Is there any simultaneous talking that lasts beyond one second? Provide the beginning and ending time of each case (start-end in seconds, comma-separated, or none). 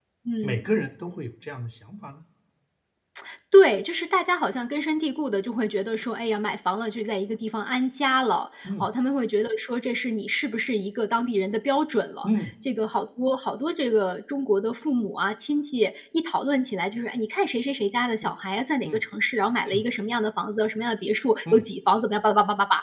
none